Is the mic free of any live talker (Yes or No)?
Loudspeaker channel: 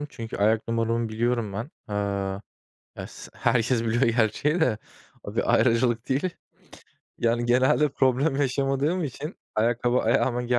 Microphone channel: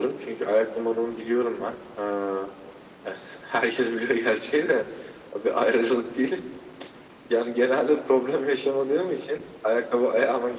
Yes